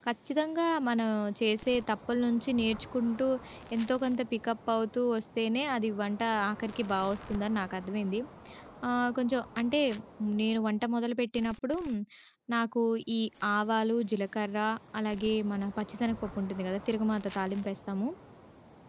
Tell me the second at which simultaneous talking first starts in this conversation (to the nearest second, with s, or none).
none